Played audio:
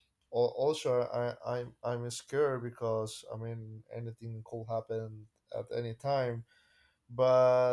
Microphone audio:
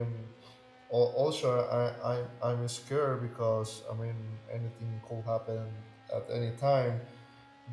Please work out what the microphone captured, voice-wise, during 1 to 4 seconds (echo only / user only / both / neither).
echo only